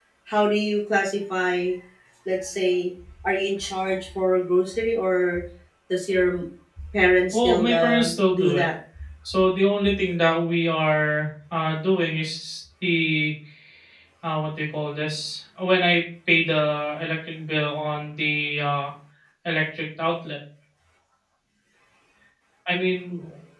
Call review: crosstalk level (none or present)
present